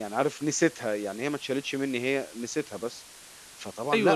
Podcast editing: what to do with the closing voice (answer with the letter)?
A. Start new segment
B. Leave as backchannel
A